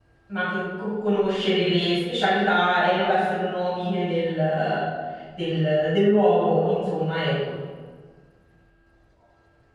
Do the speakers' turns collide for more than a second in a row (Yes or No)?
No